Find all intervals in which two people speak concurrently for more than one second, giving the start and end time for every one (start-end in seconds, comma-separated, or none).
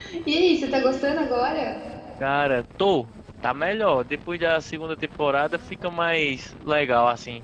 none